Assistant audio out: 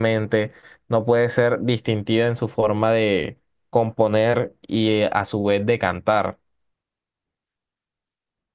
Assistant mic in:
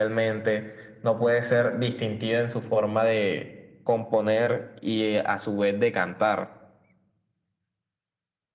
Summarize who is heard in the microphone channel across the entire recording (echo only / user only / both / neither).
echo only